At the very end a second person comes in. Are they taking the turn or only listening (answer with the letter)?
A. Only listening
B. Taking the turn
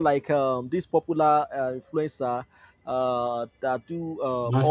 A